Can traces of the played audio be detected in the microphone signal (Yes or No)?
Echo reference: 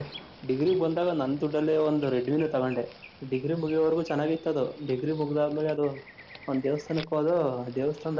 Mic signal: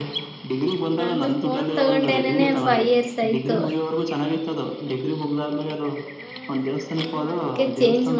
Yes